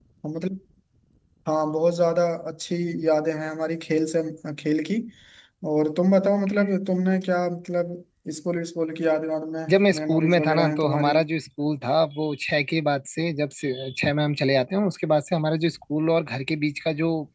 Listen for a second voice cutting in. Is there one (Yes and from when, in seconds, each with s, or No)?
Yes, from 9.7 s